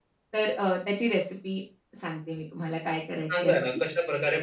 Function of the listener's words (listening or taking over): taking over